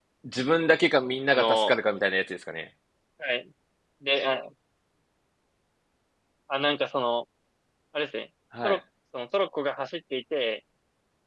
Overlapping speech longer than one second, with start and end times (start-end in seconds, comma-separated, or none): none